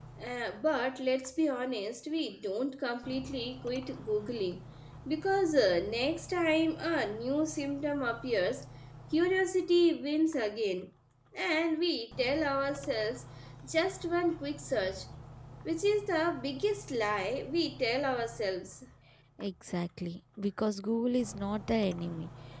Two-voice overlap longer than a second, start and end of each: none

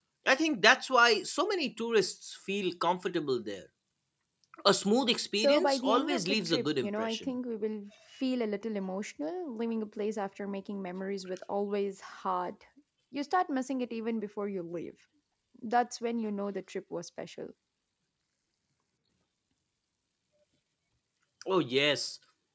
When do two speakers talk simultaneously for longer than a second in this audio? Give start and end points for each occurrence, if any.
5.4-7.3

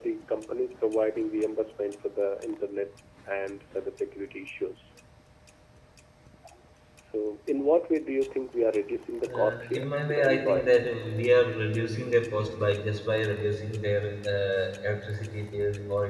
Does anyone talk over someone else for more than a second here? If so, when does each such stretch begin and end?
9.4-10.9

